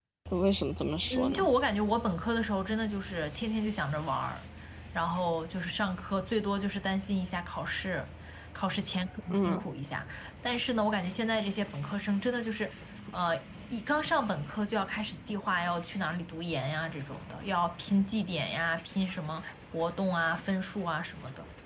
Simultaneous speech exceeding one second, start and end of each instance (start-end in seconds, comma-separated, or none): none